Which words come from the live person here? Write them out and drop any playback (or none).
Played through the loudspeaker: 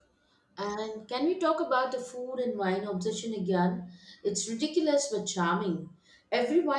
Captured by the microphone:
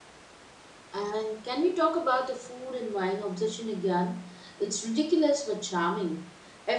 none